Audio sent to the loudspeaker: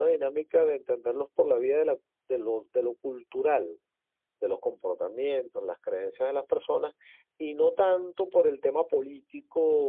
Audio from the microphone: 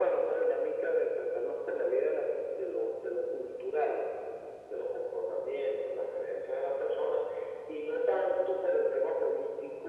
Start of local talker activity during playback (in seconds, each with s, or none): none